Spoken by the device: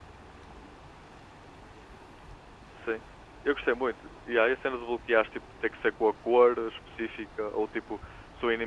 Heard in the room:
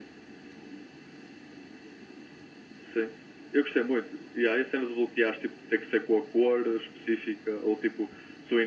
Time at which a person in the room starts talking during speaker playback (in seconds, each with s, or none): none